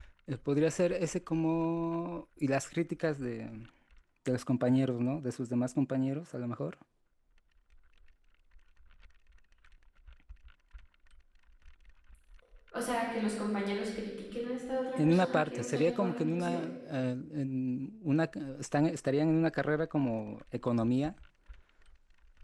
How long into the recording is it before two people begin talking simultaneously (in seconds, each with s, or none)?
15.0 s